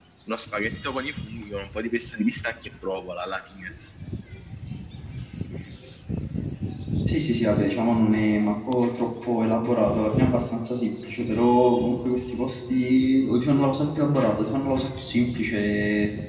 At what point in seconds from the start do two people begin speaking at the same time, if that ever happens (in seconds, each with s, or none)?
none